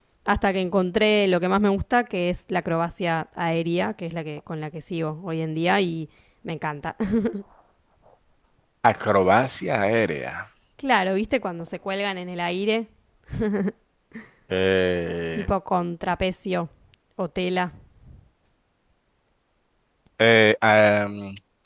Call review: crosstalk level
none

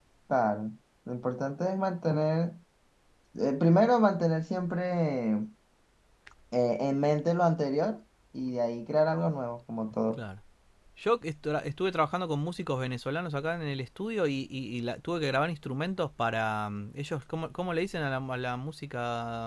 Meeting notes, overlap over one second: none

